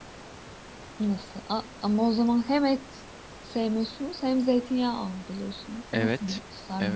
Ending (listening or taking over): taking over